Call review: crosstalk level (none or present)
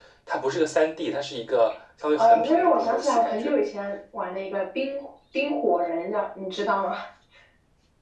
present